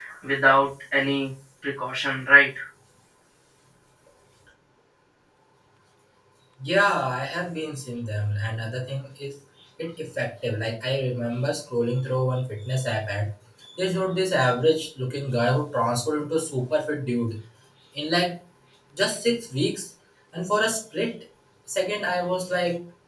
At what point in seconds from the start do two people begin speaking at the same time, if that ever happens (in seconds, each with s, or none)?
none